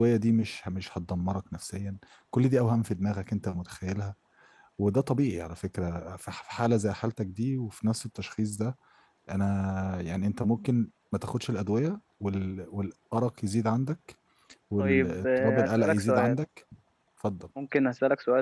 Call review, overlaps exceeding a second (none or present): present